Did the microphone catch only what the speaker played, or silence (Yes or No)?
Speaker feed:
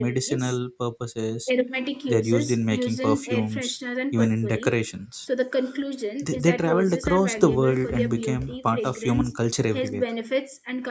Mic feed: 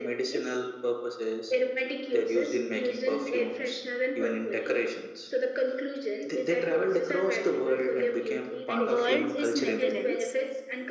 No